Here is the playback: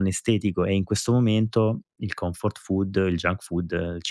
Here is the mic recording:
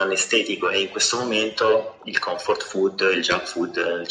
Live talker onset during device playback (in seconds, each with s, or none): none